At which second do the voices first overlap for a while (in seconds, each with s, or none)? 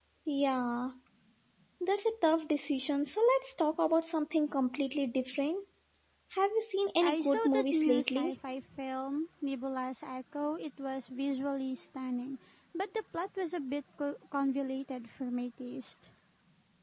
7.0 s